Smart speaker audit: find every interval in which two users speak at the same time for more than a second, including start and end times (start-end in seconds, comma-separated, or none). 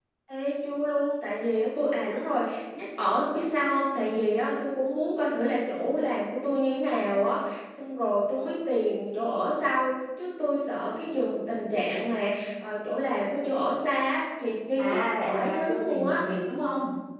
14.8-16.2